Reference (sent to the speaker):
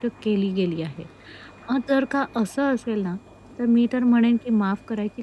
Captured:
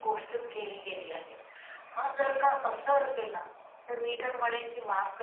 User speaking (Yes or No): No